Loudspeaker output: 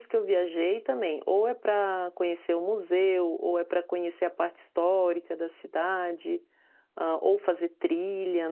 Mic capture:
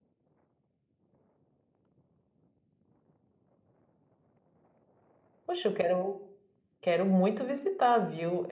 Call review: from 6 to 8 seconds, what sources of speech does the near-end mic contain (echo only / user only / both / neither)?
user only